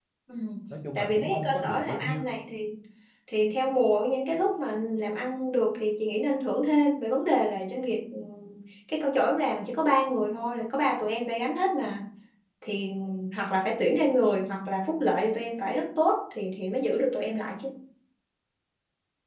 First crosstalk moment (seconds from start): 0.9 s

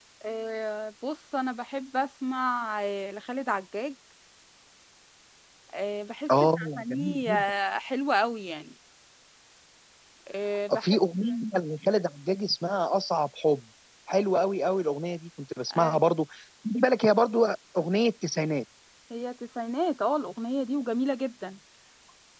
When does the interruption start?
6.3 s

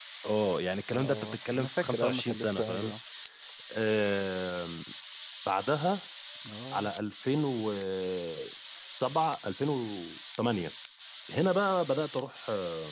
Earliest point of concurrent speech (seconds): 0.9 s

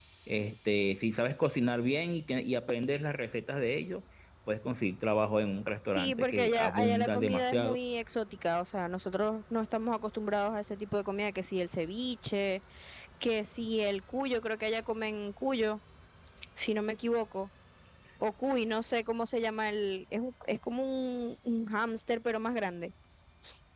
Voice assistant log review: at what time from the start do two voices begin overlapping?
6.0 s

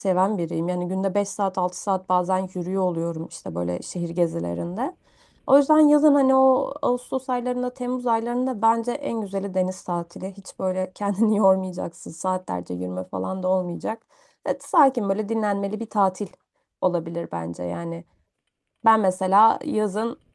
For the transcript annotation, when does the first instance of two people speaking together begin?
none

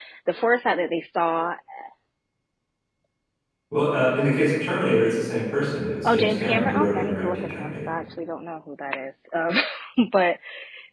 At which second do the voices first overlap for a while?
6.0 s

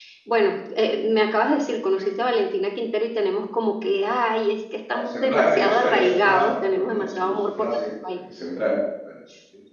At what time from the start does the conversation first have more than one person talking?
4.9 s

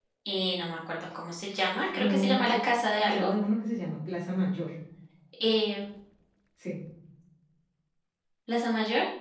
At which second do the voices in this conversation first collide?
1.8 s

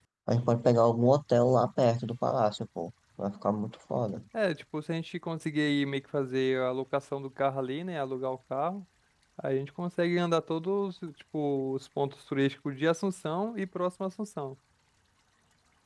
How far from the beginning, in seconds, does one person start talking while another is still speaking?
none

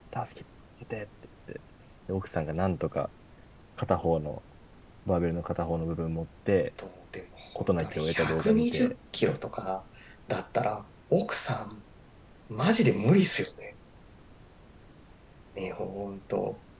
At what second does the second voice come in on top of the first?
7.6 s

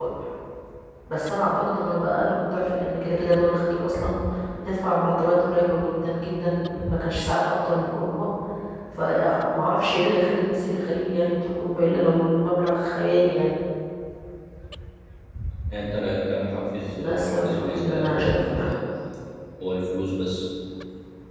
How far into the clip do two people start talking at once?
17.0 s

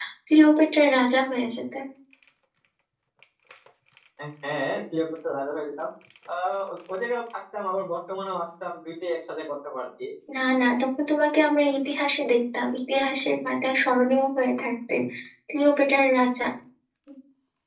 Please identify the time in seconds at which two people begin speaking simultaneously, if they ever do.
none

